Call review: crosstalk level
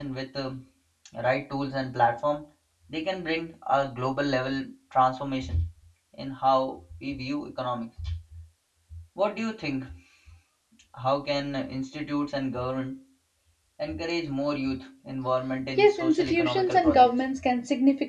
present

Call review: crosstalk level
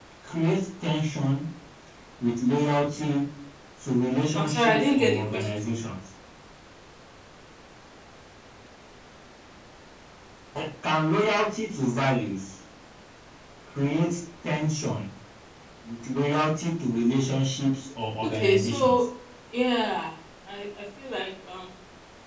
present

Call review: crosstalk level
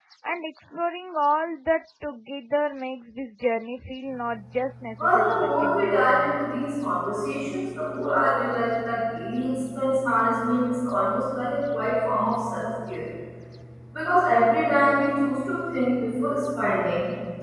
present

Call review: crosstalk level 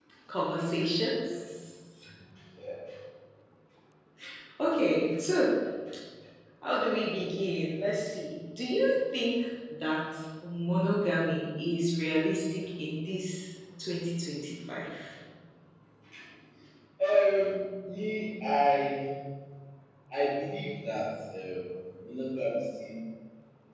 none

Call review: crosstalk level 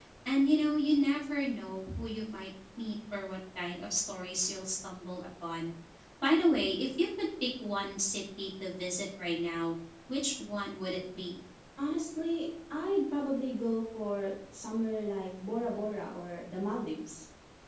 none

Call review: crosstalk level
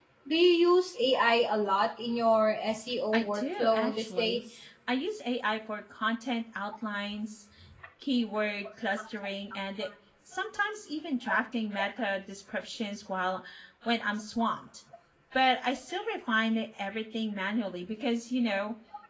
present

